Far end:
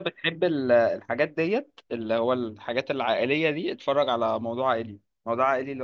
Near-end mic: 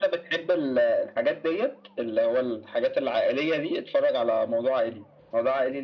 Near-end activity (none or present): none